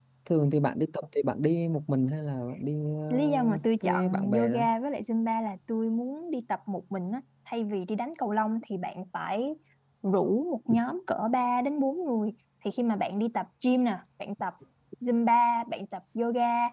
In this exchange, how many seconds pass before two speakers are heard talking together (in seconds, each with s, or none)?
3.1 s